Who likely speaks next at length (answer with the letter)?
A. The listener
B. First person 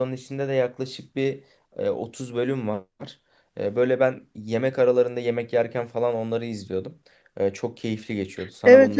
A